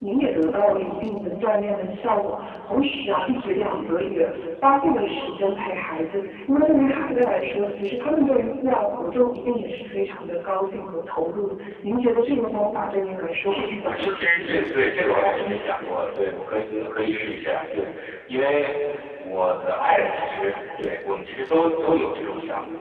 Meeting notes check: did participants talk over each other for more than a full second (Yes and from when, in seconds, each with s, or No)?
Yes, from 13.5 s